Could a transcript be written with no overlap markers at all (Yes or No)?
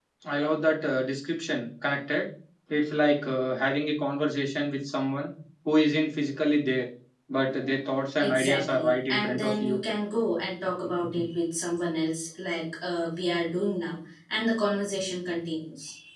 No